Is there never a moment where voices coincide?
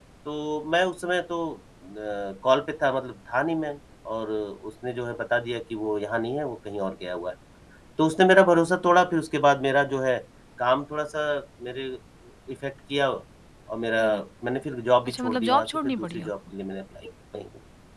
No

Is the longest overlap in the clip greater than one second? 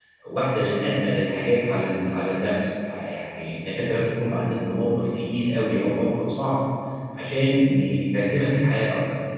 No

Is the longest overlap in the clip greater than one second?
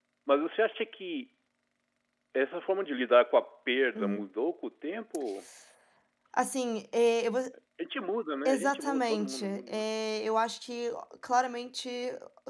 Yes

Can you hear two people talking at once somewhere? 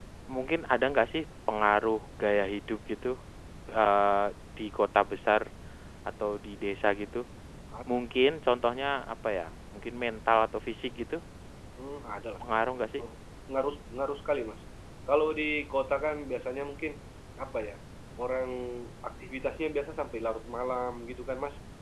No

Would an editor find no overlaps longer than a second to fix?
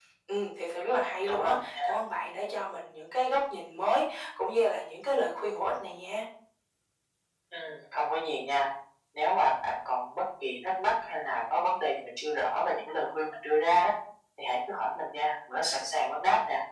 Yes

